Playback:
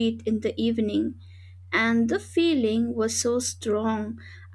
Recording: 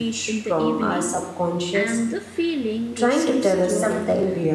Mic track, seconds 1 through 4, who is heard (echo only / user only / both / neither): both